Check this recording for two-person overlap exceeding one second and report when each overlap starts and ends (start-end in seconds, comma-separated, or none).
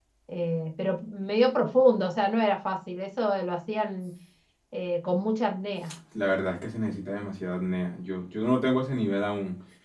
none